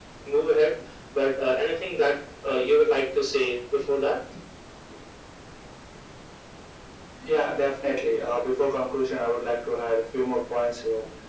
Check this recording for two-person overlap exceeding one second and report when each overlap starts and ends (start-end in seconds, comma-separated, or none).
none